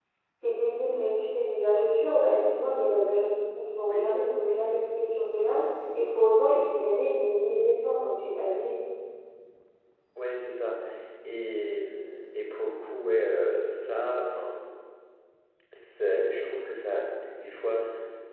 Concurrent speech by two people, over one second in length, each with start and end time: none

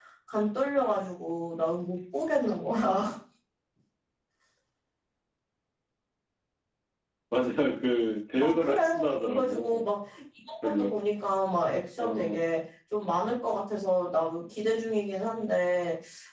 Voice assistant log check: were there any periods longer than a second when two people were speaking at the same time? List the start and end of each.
8.4-9.8

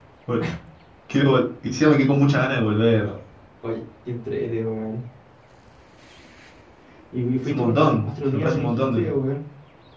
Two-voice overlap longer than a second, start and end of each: 7.5-9.1

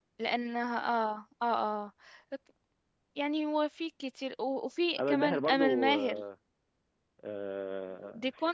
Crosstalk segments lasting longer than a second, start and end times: 5.0-6.2

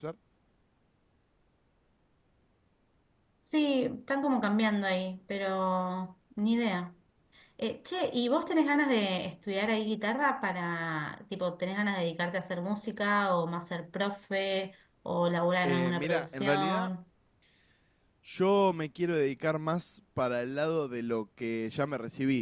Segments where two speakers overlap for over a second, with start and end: 15.6-16.9

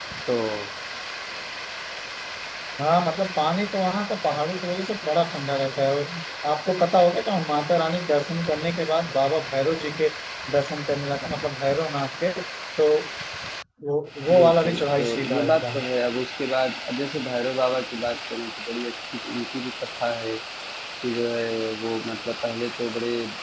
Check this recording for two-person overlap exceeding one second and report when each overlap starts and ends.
14.3-15.9

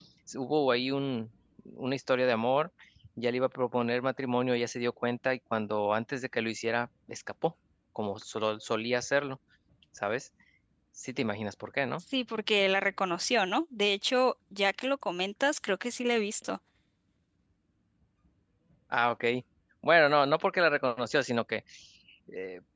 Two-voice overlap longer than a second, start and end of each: none

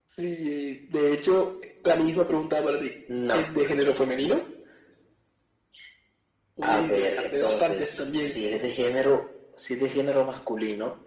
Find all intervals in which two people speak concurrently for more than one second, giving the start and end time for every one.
6.6-8.4

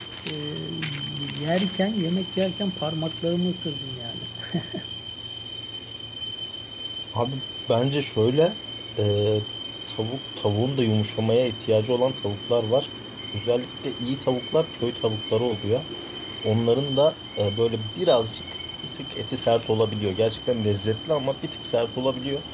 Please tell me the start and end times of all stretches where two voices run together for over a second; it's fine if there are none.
none

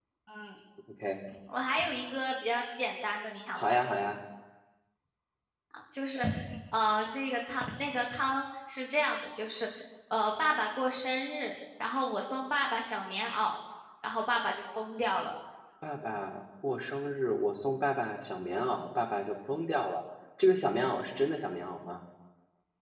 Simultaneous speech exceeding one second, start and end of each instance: none

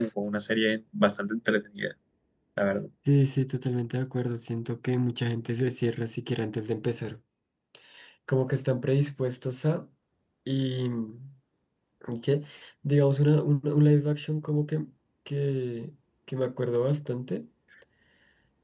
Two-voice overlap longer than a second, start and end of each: none

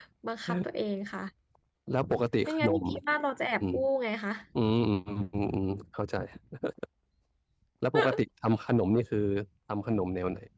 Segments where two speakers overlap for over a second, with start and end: none

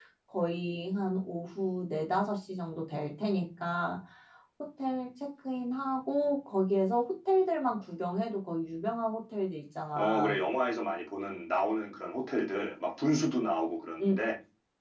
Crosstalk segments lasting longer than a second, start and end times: none

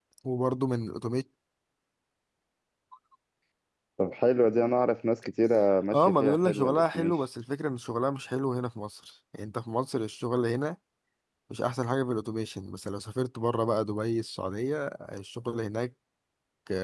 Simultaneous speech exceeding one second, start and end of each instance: 5.9-7.1

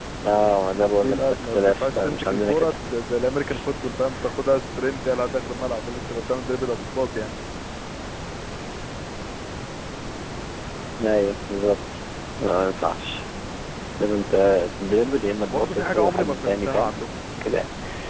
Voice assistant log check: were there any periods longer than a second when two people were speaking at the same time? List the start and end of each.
0.7-2.7, 15.4-16.9

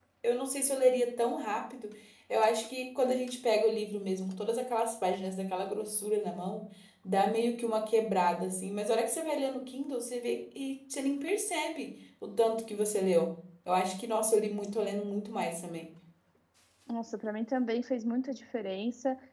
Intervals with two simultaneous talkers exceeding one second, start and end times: none

